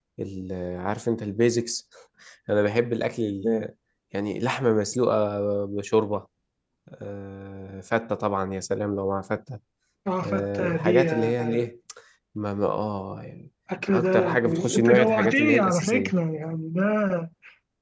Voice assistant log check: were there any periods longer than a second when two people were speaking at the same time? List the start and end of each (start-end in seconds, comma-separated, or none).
10.2-11.7, 13.9-16.1